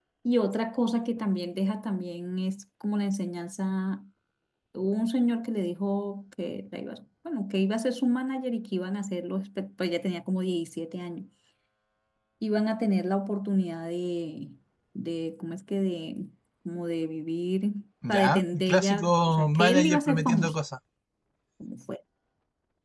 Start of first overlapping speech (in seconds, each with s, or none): 18.0 s